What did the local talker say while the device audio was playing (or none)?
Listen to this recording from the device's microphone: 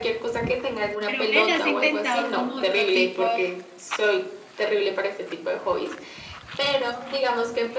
Pero ven, has intentado como otro tipo